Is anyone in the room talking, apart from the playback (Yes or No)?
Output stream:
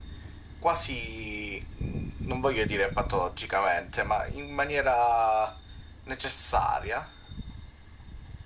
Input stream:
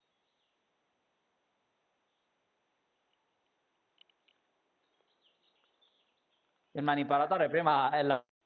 Yes